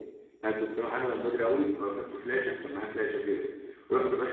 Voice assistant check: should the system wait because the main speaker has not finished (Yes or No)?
Yes